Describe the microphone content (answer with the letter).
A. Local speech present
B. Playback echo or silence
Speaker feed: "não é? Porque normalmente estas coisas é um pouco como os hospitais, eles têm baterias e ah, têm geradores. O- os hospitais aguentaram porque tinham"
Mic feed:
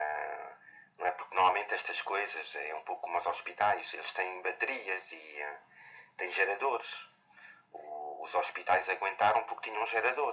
B